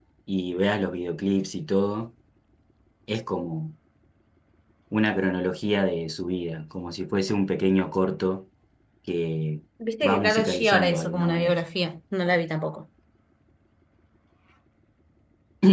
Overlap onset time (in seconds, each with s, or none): 10.1 s